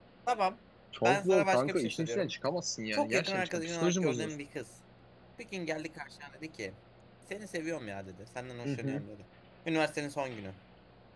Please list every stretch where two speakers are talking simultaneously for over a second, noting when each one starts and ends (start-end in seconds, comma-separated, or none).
1.0-2.3, 2.9-4.3